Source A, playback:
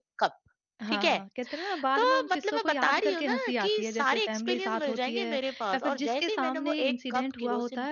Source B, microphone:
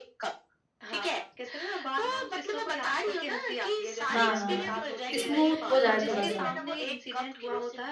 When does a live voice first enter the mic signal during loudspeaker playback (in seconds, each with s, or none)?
4.1 s